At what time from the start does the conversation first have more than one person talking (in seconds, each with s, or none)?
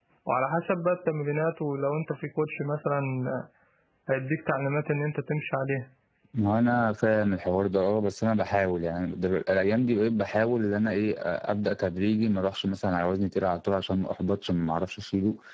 none